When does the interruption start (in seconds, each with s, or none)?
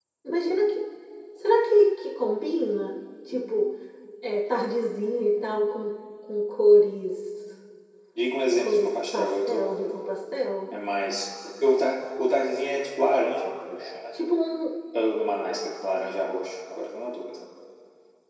8.6 s